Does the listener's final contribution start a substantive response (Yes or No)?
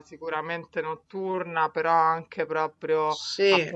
No